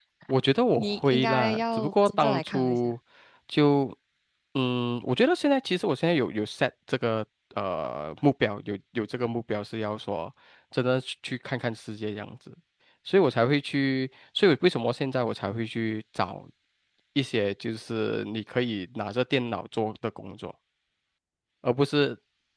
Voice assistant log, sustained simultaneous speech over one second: present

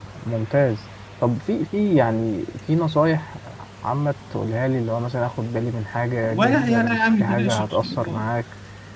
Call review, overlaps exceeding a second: present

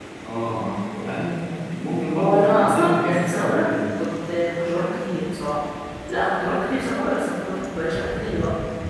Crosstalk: present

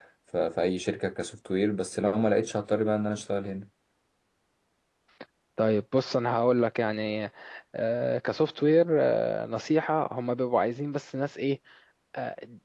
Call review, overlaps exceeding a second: none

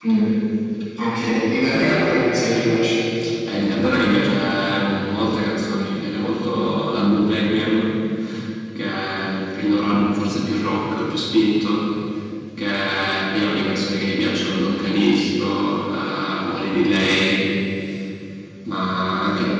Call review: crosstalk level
none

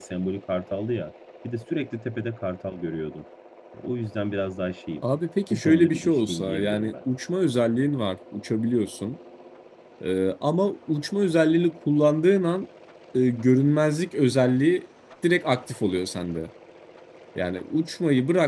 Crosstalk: present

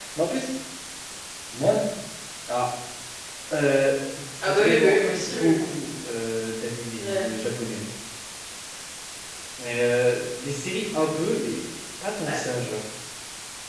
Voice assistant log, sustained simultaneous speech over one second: present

